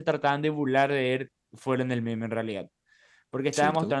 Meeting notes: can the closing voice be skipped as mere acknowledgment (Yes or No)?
Yes